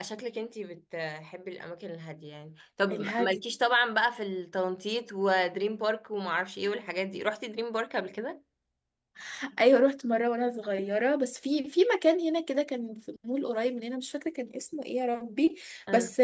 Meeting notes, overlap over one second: none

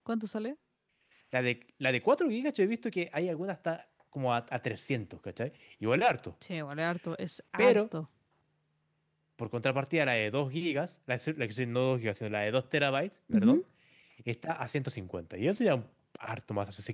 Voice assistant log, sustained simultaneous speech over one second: none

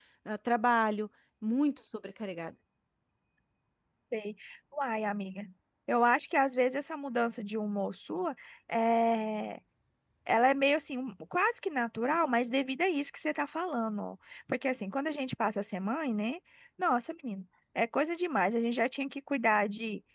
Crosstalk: none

